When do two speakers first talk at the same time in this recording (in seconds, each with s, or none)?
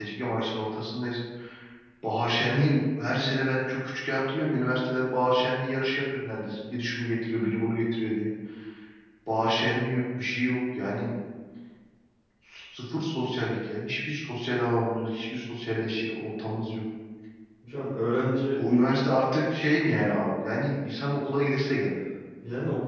none